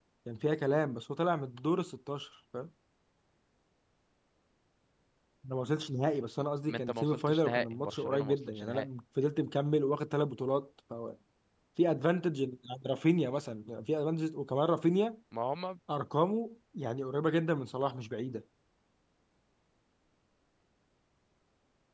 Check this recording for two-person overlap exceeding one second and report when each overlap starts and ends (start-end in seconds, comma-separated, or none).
6.7-8.8